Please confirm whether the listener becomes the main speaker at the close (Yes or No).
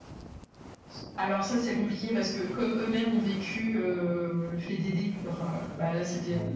No